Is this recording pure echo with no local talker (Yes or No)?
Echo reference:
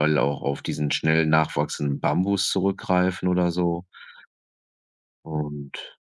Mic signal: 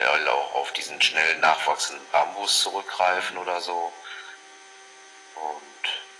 Yes